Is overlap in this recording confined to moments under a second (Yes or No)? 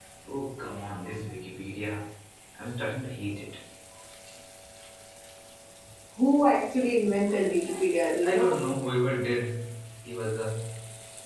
Yes